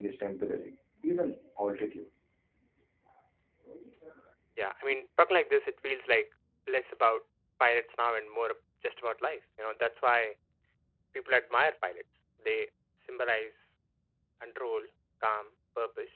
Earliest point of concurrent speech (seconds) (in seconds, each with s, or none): none